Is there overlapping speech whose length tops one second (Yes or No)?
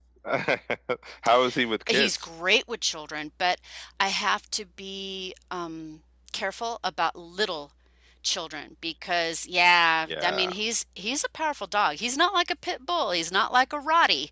No